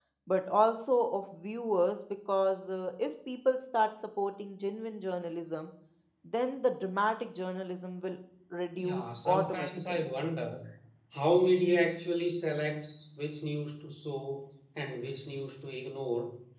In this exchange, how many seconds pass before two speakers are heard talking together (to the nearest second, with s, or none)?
9 s